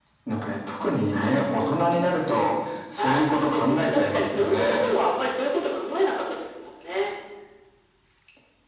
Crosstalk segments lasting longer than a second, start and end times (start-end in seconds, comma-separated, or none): 3.0-4.8